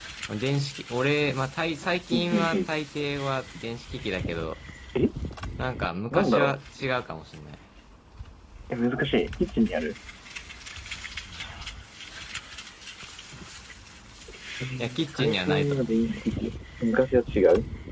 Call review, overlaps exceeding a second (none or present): present